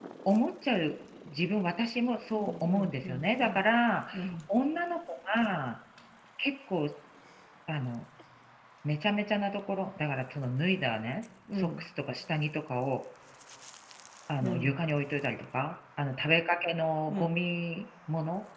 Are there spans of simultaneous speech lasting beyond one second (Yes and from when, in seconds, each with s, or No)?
Yes, from 2.3 s